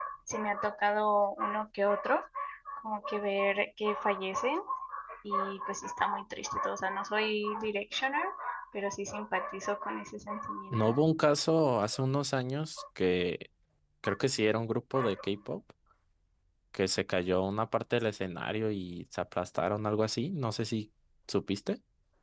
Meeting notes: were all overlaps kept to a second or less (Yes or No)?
Yes